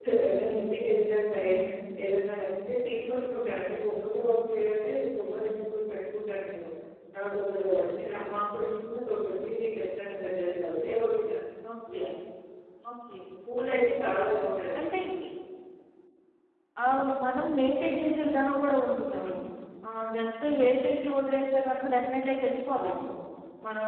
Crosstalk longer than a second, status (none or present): none